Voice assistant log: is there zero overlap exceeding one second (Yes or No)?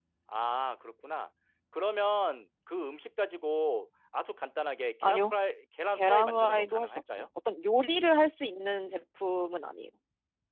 No